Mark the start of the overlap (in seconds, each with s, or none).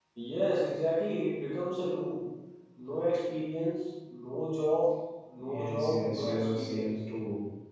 5.4 s